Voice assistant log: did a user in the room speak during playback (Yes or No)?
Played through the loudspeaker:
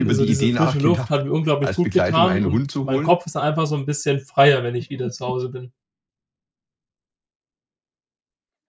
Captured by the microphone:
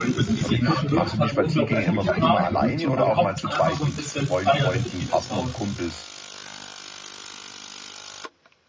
Yes